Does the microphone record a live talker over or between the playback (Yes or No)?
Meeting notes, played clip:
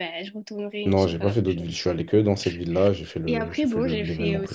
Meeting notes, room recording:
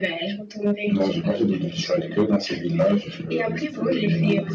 No